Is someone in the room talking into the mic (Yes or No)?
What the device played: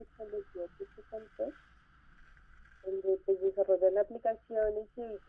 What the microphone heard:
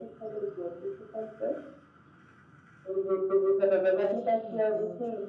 Yes